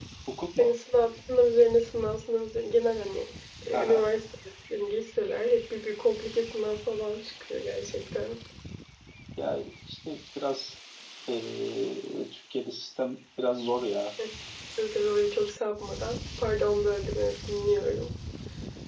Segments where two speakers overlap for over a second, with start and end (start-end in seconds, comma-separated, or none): none